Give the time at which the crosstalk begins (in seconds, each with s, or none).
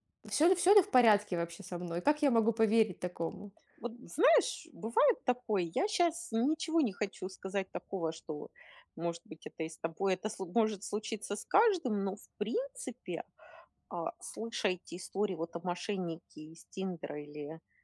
none